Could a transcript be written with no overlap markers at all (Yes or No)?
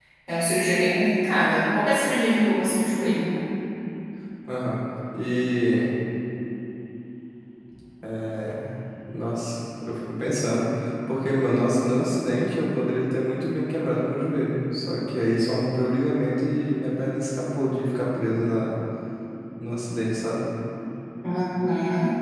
Yes